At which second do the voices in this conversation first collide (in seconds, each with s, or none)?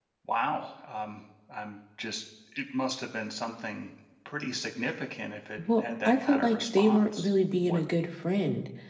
5.6 s